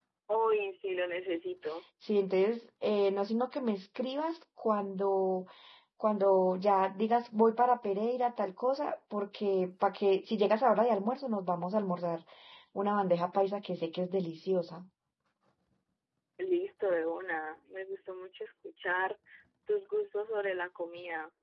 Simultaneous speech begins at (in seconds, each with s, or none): none